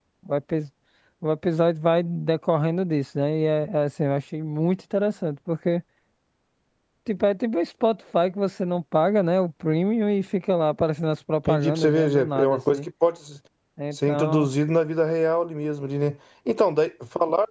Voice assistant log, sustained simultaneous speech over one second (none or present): present